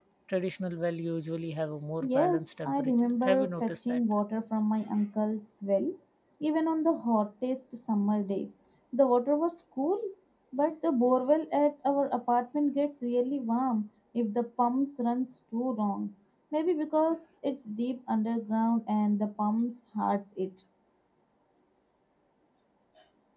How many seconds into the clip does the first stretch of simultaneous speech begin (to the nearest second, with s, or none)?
2 s